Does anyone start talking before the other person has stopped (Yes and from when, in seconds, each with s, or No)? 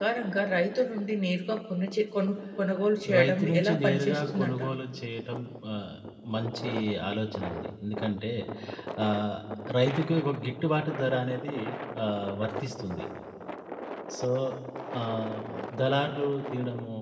Yes, from 3.0 s